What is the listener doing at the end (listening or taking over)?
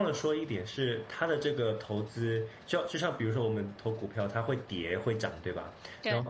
listening